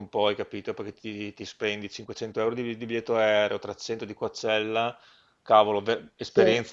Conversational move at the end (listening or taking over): listening